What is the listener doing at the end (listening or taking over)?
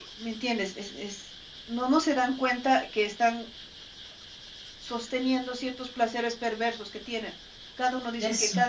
listening